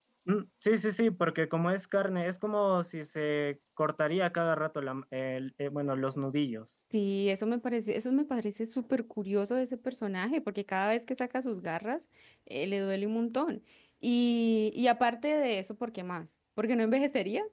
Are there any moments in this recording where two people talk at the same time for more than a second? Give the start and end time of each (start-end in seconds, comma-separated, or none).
none